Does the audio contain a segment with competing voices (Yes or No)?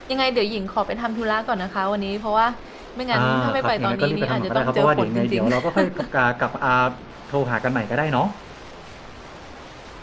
Yes